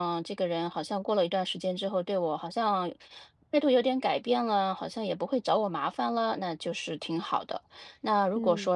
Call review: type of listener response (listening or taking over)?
listening